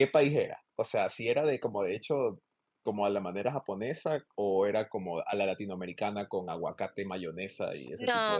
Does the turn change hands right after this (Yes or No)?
Yes